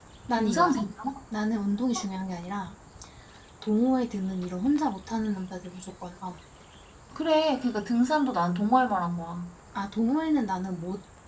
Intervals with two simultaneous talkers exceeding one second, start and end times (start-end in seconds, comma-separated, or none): none